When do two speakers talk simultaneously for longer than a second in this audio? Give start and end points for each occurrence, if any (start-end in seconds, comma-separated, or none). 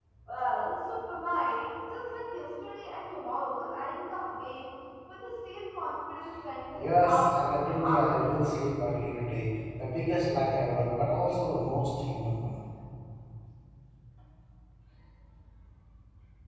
6.7-8.5